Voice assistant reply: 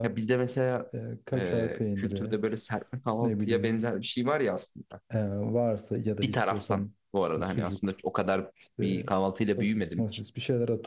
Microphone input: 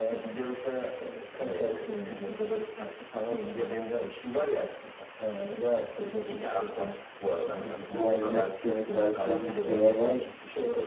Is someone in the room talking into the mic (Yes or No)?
Yes